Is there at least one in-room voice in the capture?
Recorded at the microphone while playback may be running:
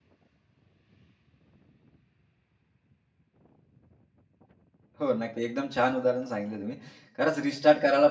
Yes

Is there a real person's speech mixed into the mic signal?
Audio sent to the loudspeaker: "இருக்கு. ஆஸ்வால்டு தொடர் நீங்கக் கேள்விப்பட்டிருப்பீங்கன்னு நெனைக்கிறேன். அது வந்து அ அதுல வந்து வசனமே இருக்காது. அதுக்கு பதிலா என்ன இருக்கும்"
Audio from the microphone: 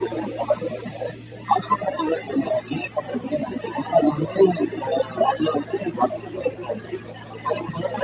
No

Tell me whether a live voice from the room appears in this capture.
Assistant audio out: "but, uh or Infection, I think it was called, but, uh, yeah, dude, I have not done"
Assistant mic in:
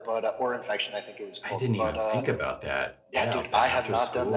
Yes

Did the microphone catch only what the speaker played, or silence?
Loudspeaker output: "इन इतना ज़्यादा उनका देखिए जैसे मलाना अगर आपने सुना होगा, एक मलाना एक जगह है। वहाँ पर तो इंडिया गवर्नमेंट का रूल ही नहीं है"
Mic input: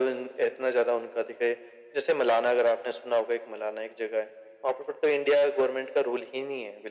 Yes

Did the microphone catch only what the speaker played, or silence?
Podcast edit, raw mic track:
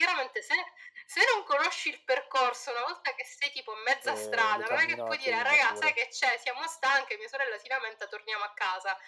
No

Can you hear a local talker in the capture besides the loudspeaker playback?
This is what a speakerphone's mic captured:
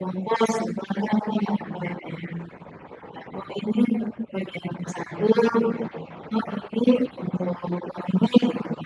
No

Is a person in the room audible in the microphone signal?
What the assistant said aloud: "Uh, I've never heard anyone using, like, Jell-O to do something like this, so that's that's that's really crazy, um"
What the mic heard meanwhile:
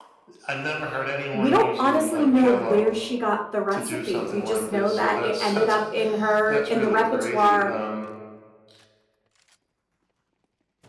Yes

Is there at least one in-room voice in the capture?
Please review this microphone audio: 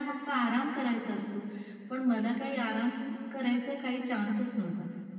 No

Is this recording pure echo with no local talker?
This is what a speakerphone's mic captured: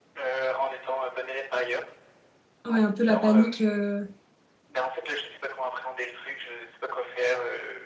No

